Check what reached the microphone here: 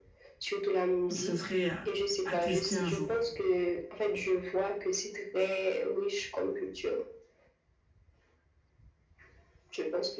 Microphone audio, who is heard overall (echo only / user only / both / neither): both